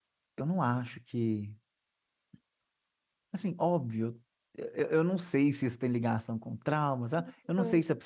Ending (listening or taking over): listening